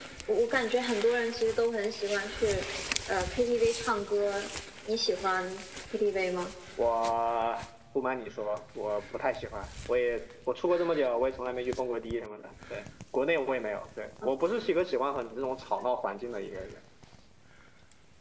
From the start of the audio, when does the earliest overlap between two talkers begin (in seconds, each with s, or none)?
none